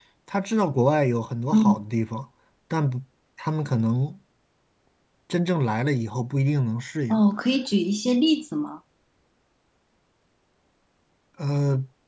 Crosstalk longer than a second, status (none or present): none